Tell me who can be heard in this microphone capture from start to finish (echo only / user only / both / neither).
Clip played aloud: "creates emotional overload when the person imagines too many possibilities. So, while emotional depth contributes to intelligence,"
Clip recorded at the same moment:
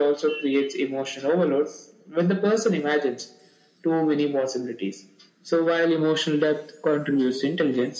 echo only